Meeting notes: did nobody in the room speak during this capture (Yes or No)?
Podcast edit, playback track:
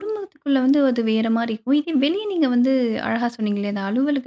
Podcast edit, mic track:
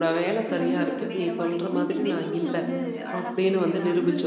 No